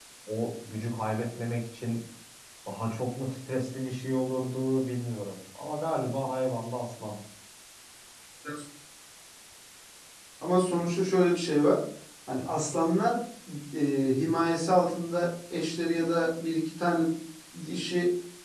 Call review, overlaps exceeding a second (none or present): none